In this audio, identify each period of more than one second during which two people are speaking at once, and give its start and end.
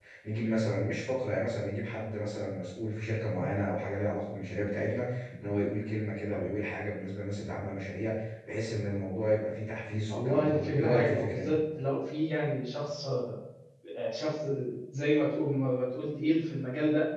10.1-11.5

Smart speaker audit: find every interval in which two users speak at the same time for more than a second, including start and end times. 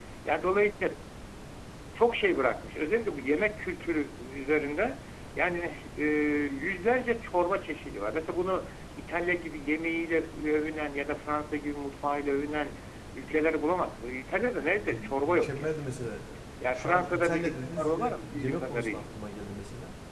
14.6-15.8, 16.7-19.0

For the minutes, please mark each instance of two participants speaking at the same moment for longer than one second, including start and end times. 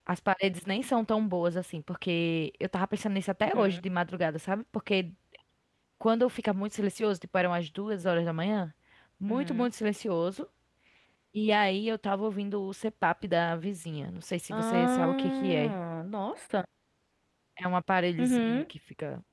14.5-15.8

